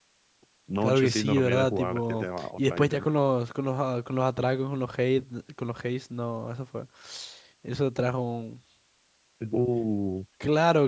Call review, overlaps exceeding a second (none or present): present